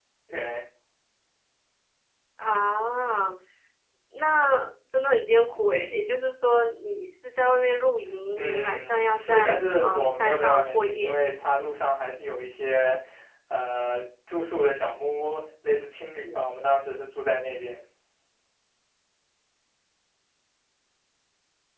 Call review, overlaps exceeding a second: present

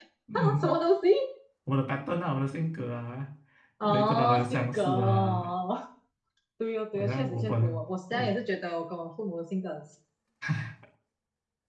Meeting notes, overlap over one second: present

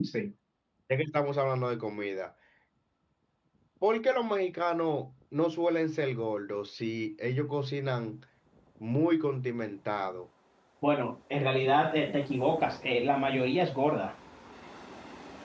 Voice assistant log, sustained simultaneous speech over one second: none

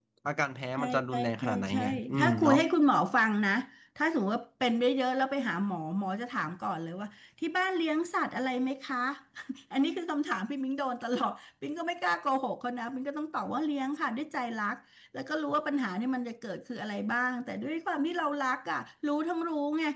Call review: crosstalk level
present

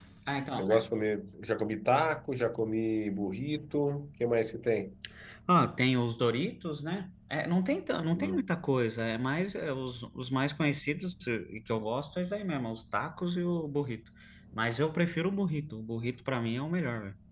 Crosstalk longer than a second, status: none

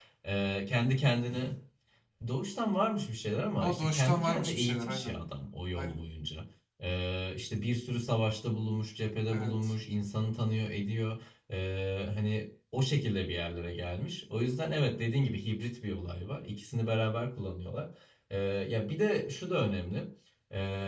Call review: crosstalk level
present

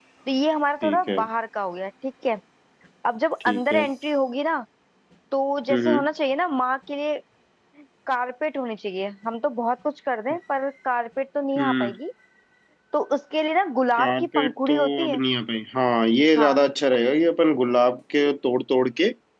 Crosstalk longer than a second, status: present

